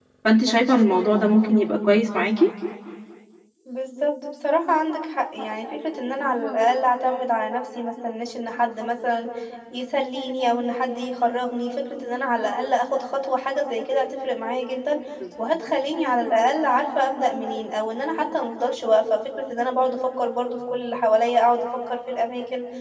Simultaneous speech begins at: none

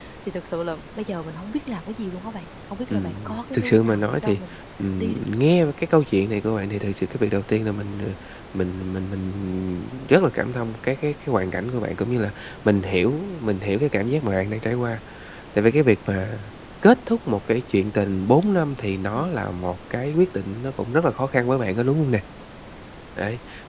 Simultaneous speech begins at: 2.9 s

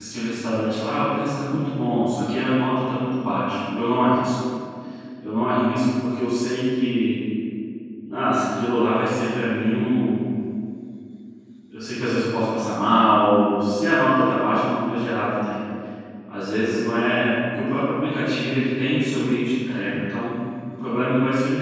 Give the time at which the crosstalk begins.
none

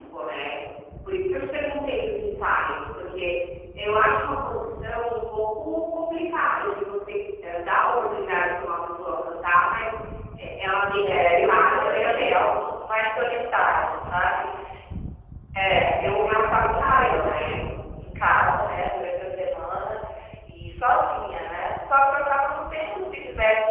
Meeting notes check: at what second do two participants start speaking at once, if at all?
11.0 s

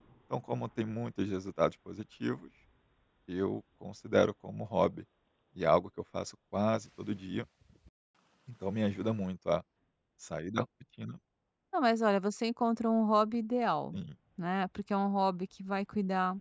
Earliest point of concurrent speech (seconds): none

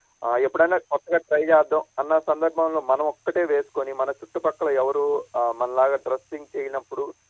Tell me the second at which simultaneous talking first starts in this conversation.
none

